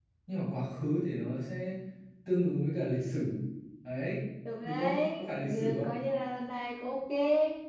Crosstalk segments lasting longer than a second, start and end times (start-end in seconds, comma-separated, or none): 4.6-5.9